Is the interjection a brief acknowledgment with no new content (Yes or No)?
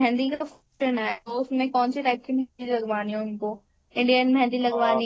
Yes